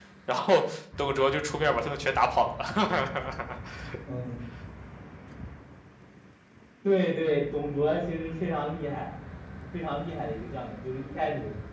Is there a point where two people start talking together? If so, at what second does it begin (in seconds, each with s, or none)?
none